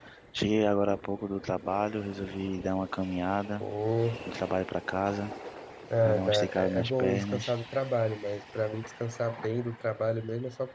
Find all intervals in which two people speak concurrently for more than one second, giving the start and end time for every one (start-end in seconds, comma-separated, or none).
6.0-7.5